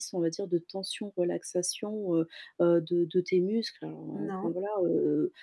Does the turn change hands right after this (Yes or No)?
No